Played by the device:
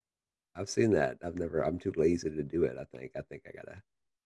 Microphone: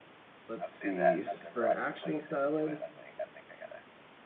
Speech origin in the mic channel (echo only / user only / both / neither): both